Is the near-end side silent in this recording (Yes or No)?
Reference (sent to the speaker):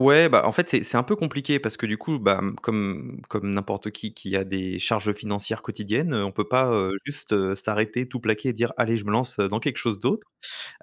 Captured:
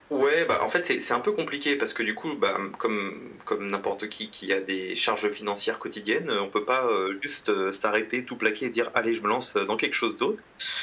Yes